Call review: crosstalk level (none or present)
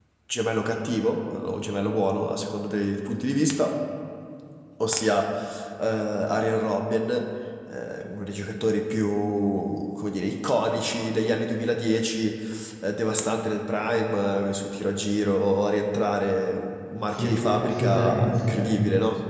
present